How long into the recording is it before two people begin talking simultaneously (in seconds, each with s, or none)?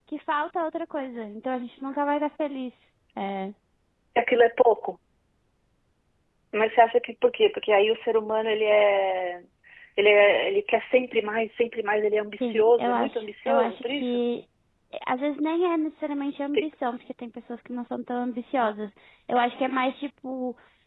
12.4 s